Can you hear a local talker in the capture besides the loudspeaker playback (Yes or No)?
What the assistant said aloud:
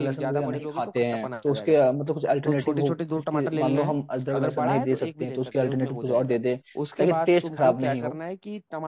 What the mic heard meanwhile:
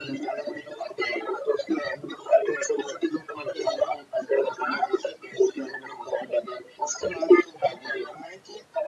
No